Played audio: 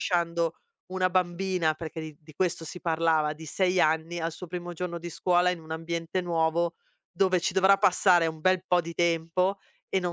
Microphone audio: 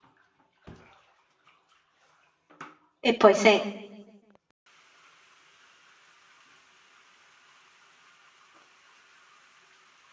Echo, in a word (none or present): none